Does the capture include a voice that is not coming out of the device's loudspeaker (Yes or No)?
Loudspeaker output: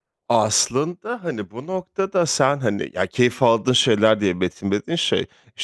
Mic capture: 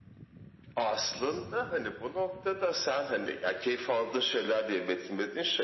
No